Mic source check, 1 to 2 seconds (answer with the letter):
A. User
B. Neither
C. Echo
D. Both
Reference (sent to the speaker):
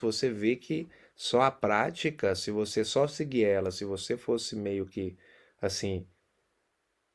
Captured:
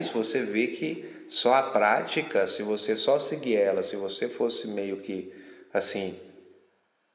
C